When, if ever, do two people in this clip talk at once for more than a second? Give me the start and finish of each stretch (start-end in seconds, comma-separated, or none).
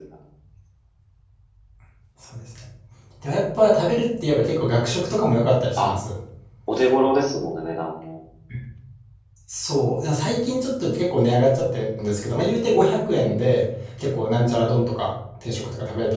none